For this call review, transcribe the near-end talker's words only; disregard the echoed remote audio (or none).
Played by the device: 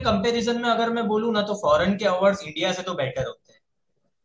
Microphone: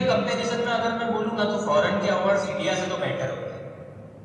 none